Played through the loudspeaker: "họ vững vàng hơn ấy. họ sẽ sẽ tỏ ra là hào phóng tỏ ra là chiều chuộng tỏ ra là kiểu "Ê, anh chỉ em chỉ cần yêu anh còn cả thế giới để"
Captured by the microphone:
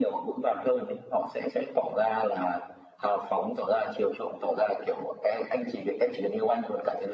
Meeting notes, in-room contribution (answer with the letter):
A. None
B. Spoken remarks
A